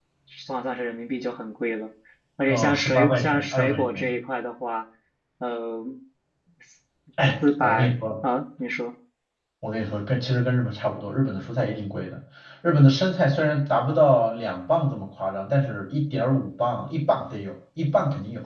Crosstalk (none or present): present